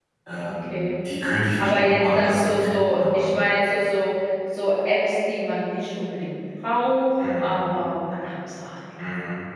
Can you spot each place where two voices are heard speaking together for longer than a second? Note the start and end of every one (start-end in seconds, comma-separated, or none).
1.6-3.3